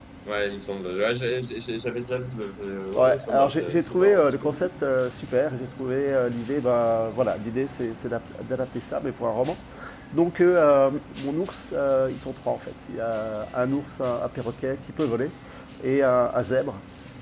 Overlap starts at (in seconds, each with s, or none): 3.0 s